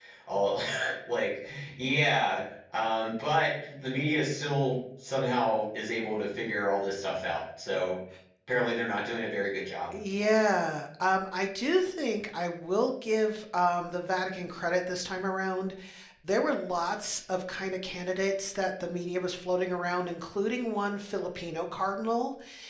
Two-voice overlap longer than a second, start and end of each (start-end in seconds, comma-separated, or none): none